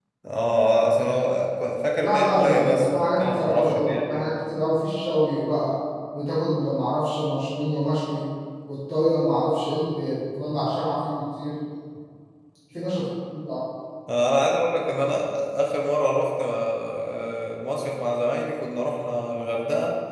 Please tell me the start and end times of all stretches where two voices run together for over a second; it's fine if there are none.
2.0-4.3

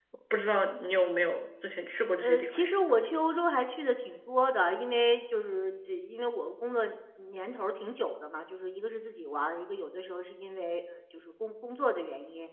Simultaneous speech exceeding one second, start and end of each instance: none

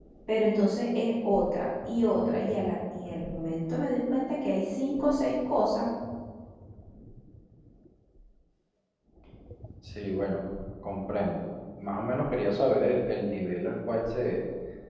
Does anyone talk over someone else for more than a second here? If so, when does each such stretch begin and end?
none

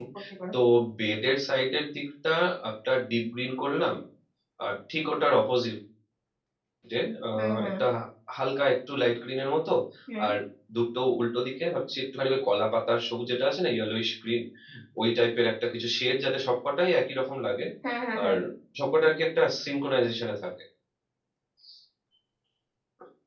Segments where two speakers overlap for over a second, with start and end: none

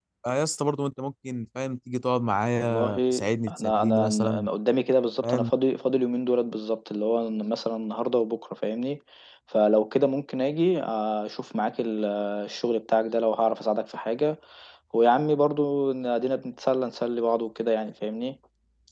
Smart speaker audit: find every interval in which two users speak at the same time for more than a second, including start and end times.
2.6-4.5

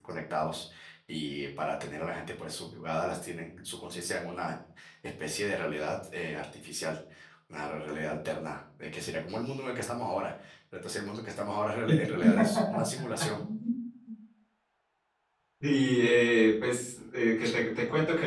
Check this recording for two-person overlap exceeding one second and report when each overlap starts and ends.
none

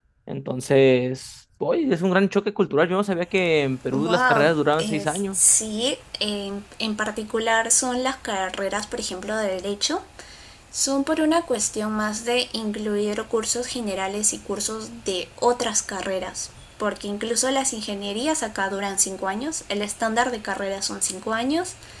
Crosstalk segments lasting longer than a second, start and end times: 3.9-5.4

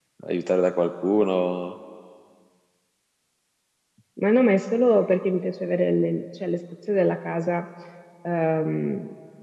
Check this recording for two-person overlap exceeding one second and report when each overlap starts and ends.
none

